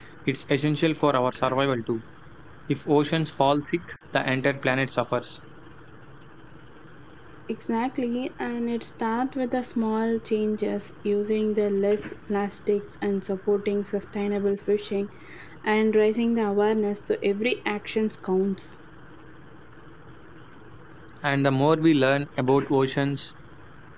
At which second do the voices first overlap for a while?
none

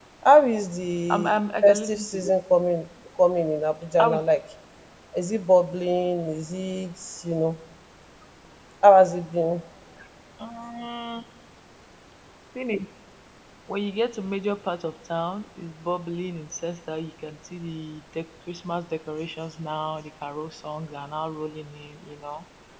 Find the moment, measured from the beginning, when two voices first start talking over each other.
1.1 s

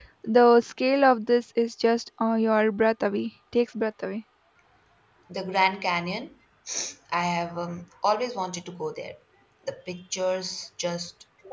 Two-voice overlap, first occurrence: none

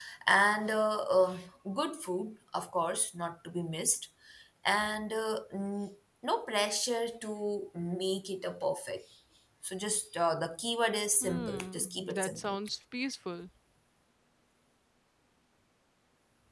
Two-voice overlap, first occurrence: 11.2 s

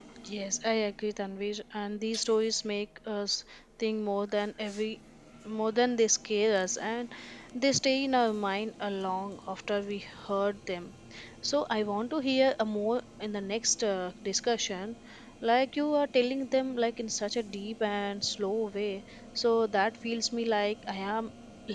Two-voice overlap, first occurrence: none

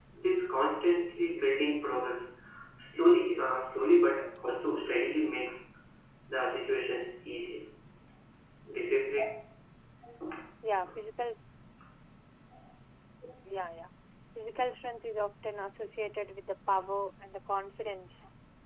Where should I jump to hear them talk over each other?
none

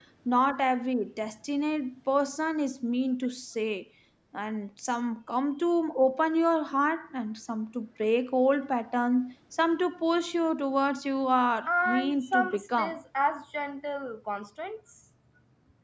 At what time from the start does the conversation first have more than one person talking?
11.7 s

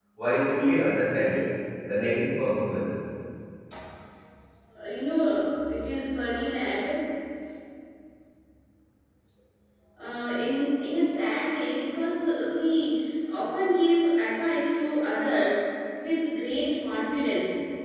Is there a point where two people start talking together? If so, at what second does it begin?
none

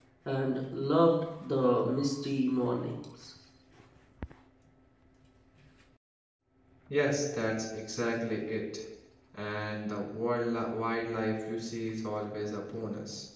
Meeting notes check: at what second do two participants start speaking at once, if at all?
none

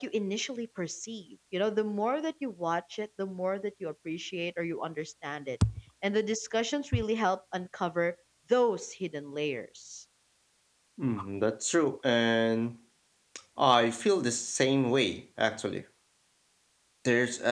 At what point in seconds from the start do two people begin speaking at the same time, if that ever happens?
none

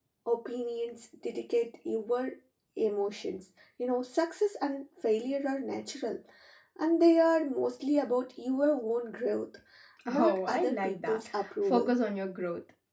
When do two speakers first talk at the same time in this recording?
10.1 s

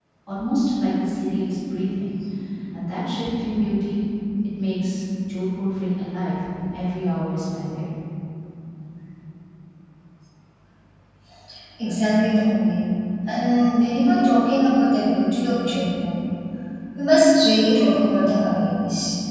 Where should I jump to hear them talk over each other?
none

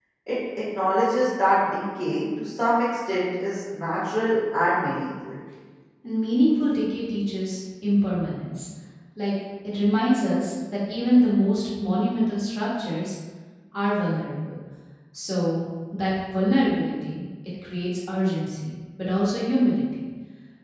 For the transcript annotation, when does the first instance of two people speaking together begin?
none

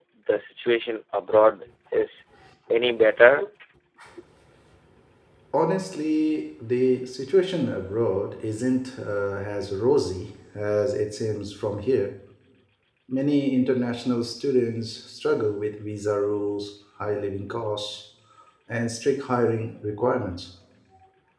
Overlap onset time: none

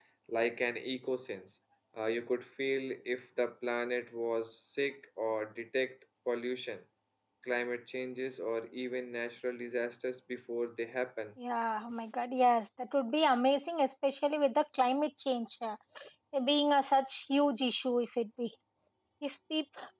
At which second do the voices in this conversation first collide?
none

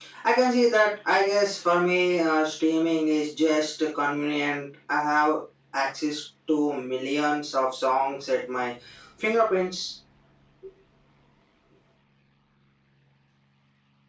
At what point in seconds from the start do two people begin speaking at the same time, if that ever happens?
none

